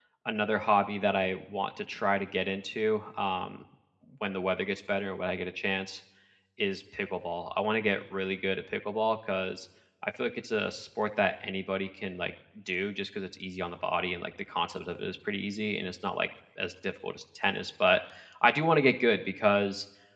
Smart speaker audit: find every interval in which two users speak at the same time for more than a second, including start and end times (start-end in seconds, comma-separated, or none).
none